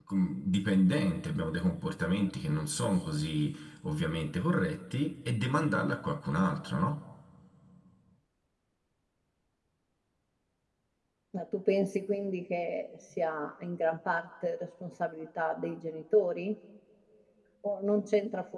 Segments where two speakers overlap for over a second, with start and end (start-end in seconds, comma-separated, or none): none